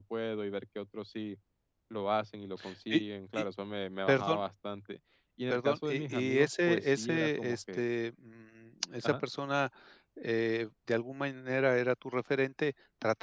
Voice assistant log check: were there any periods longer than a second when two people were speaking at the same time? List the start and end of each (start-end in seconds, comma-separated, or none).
5.5-7.8